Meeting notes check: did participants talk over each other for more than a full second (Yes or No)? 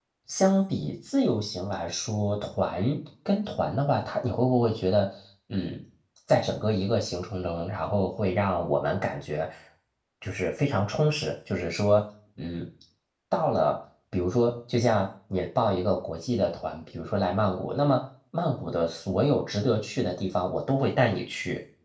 No